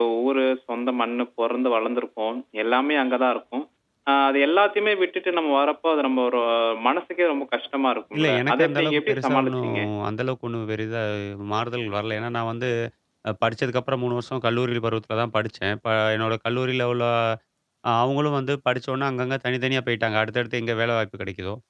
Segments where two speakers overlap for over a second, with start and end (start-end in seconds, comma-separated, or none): 8.2-9.7